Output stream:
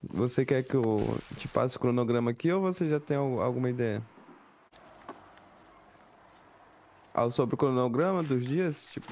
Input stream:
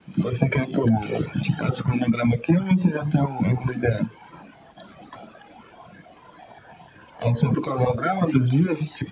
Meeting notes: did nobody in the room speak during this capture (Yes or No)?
Yes